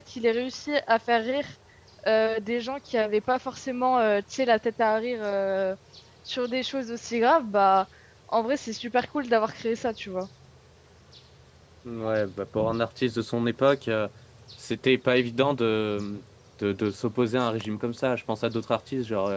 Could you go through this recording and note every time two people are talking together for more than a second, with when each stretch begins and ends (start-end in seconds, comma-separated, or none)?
none